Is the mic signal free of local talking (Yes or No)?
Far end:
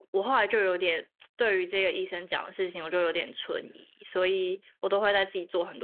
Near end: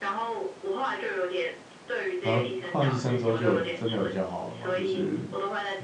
No